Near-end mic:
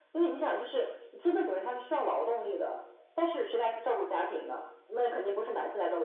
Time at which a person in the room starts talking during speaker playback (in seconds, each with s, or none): none